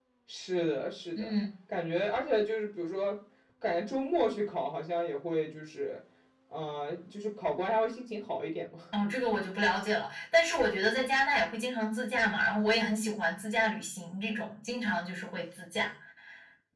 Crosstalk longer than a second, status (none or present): none